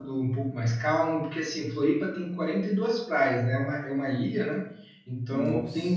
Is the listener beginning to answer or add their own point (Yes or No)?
No